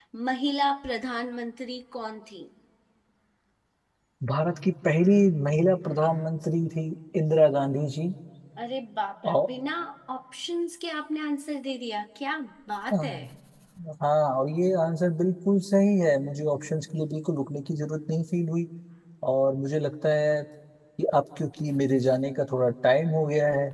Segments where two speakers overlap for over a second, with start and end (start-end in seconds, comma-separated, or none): none